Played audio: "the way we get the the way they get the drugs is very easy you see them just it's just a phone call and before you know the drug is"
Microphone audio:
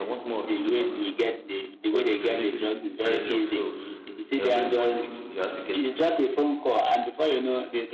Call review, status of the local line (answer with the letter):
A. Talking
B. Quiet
A